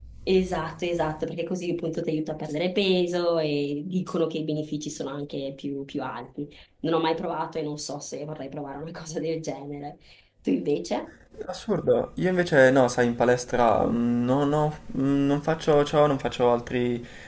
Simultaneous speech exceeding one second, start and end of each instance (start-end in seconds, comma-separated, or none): none